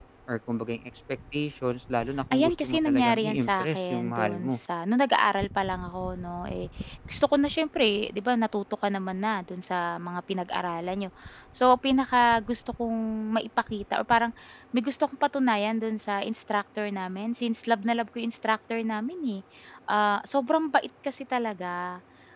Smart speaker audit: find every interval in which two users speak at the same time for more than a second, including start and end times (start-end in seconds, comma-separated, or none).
2.3-4.6